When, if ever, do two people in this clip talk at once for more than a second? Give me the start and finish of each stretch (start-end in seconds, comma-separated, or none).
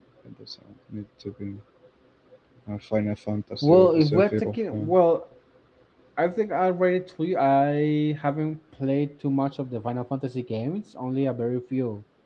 3.6-4.9